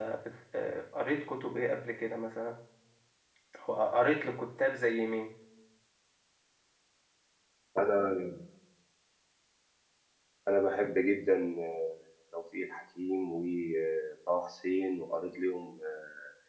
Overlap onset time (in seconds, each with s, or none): none